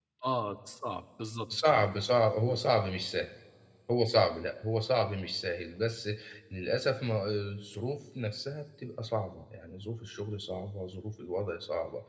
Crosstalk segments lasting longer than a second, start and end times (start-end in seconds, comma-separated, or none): none